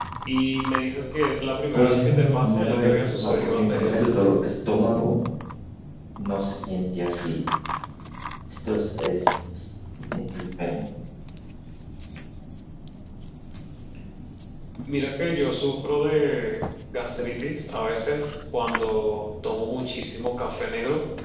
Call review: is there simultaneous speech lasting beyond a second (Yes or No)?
Yes